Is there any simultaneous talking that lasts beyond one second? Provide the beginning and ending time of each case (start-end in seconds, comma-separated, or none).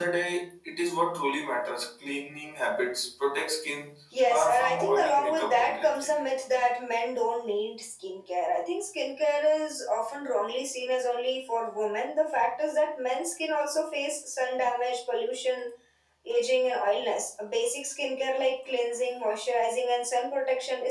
4.3-6.1